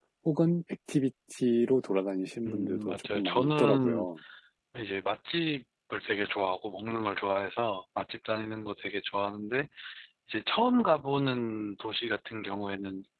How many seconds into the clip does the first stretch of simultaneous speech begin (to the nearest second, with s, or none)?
2 s